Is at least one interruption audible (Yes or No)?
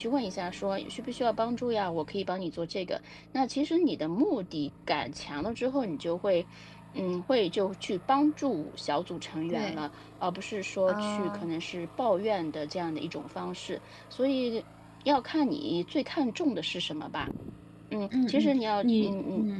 Yes